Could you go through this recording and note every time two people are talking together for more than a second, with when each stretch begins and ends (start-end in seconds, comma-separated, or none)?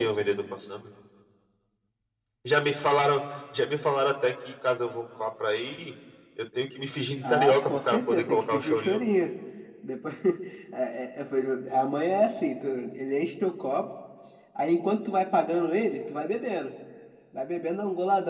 7.2-9.0